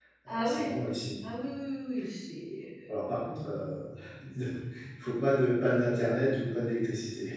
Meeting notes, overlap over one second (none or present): none